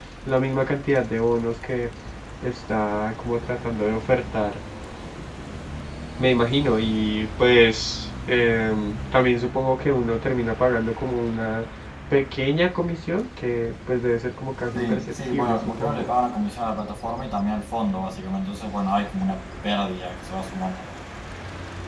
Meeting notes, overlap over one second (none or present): present